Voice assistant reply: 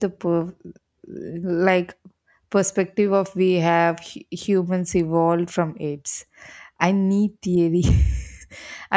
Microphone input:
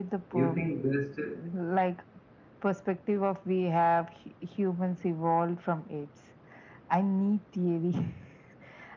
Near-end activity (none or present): present